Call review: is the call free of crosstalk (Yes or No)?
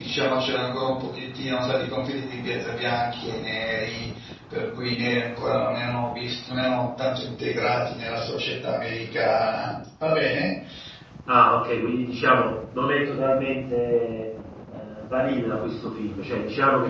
Yes